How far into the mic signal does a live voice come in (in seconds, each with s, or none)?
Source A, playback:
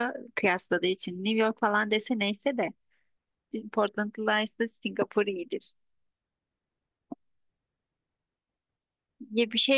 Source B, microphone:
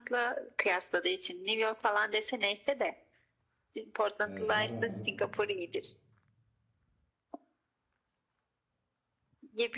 4.2 s